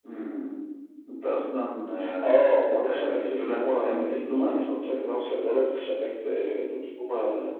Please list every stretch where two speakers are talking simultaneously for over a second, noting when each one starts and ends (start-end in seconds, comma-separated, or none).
2.2-4.6